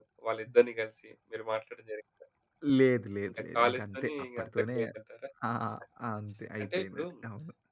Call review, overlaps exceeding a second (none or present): present